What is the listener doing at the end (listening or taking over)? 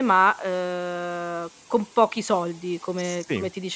taking over